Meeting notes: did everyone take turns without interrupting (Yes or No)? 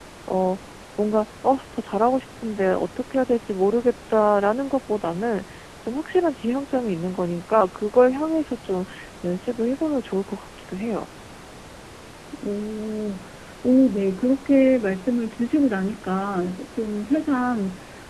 Yes